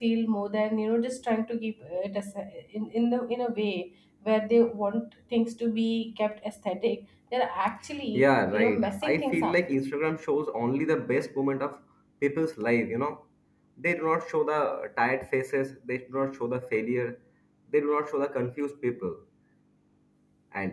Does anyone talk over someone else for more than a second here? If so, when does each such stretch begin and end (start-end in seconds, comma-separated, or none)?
8.1-9.6